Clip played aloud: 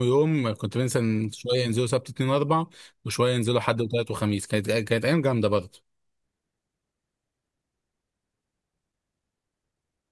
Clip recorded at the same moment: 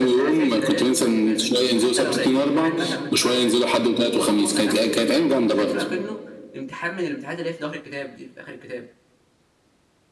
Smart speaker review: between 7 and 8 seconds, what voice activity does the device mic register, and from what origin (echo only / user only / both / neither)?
user only